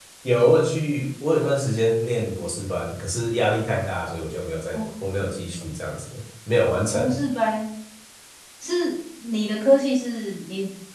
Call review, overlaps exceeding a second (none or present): none